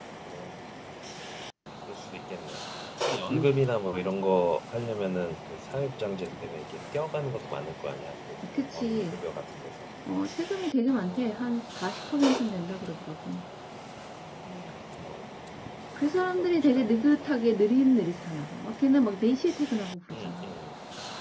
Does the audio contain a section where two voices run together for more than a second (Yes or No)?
Yes